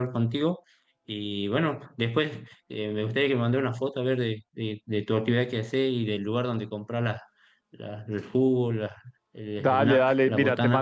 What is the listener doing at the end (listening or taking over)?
taking over